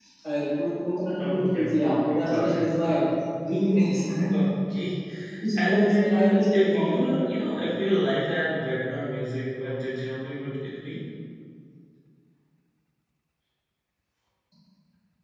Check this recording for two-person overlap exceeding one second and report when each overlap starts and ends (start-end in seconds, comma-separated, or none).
1.2-3.0, 5.7-7.0